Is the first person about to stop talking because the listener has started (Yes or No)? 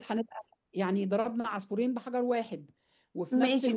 Yes